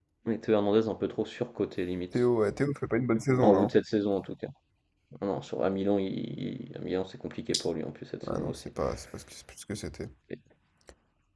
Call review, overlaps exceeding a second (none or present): none